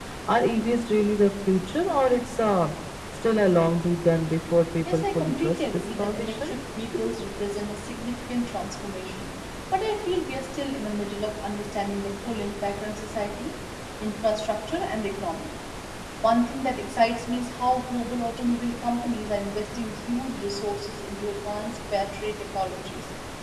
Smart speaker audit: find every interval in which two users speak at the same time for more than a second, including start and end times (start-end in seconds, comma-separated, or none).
4.9-6.5